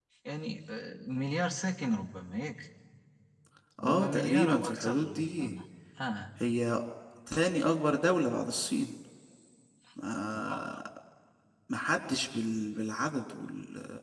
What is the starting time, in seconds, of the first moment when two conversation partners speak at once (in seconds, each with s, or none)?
3.8 s